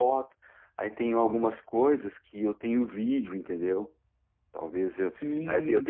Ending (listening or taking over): taking over